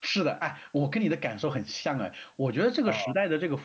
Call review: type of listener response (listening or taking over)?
listening